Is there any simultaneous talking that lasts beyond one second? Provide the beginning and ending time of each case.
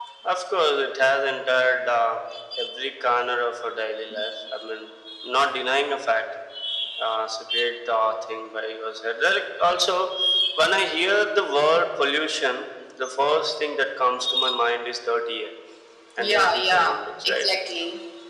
16.2-17.5

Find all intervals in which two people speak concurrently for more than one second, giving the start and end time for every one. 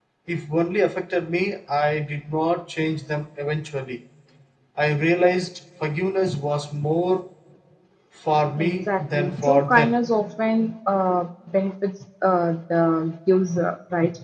8.6-10.0

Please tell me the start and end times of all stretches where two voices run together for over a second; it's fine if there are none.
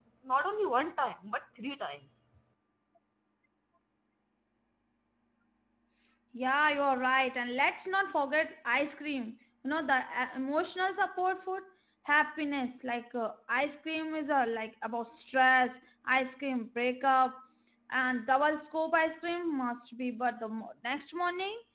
none

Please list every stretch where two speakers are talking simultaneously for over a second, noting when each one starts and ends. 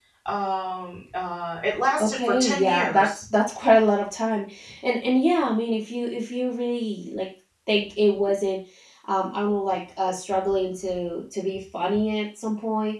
2.0-3.2

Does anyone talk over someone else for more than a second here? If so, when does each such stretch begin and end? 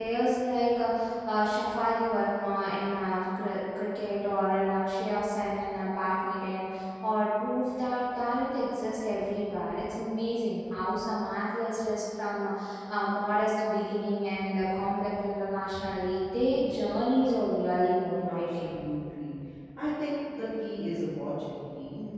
none

